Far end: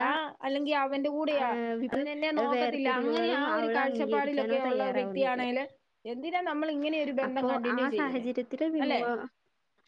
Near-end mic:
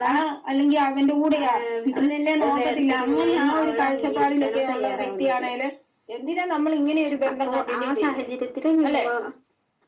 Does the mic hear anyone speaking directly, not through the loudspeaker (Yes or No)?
No